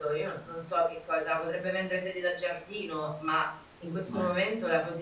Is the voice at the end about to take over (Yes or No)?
No